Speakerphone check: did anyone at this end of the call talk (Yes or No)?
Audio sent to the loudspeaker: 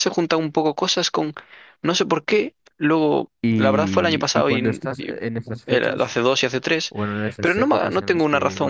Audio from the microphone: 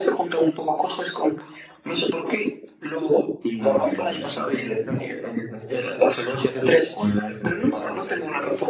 No